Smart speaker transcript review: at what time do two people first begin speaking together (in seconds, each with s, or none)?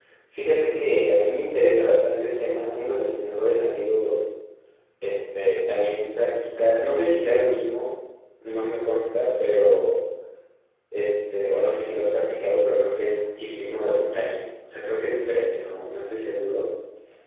none